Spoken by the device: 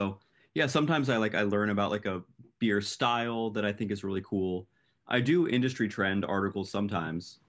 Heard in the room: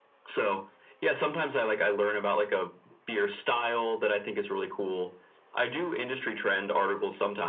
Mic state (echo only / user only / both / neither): echo only